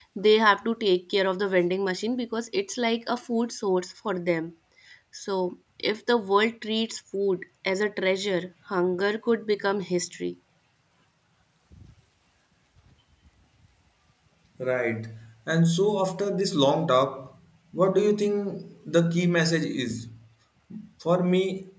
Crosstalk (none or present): none